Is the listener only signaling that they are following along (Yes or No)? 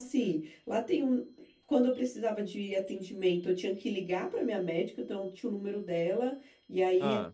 Yes